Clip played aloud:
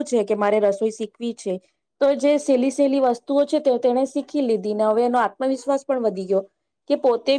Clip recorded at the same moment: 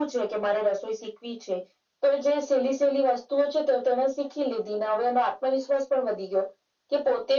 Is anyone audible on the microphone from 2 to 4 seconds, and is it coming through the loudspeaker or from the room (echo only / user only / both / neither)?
echo only